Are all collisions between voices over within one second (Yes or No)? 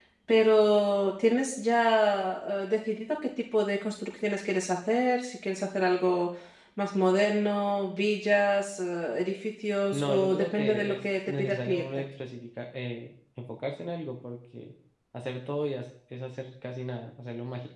No